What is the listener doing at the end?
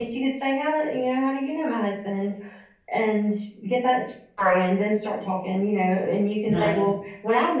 listening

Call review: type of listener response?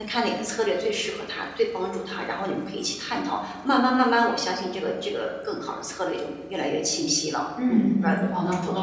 taking over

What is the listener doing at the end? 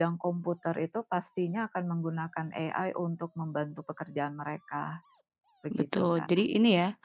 taking over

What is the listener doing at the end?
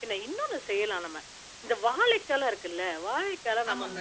listening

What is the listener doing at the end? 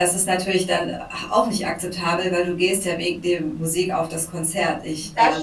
taking over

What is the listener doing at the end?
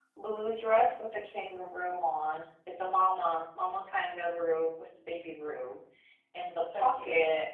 listening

